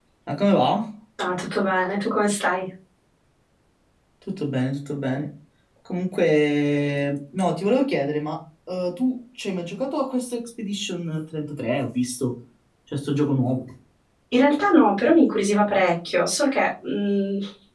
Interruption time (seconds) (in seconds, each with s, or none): none